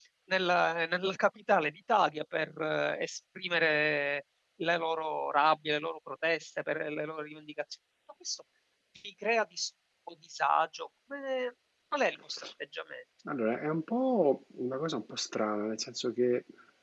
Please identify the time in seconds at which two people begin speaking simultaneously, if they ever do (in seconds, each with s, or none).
none